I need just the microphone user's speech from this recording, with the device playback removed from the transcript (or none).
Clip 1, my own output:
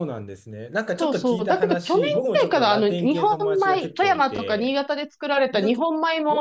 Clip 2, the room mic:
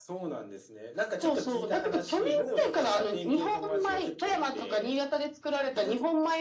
none